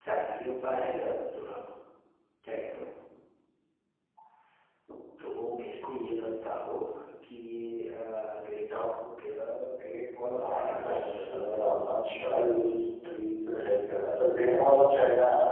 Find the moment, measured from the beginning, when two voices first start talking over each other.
10.4 s

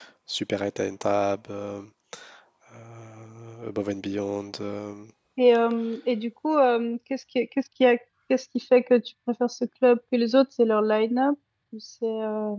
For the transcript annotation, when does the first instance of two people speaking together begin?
none

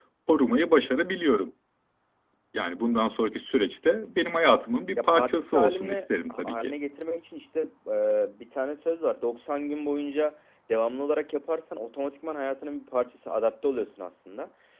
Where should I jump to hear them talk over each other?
5.0 s

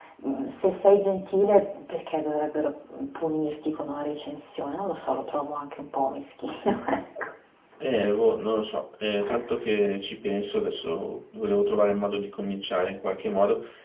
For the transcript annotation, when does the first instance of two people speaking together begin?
none

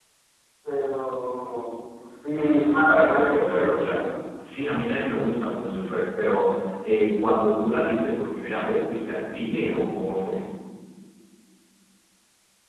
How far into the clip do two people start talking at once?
2.3 s

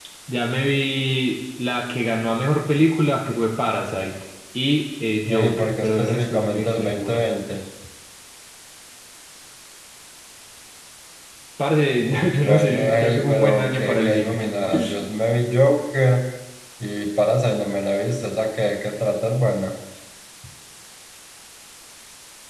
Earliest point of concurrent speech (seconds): 5.3 s

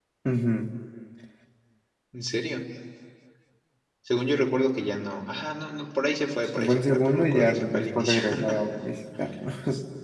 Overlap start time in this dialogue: 6.6 s

